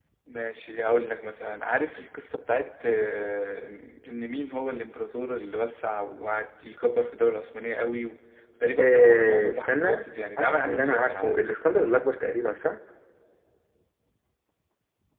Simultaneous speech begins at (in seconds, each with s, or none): 8.8 s